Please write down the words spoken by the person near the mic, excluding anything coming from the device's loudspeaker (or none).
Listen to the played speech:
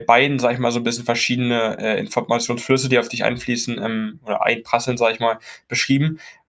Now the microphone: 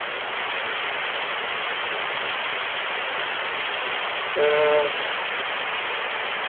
Hm,